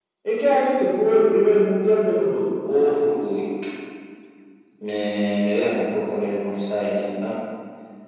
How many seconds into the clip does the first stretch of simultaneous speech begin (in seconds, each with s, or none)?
none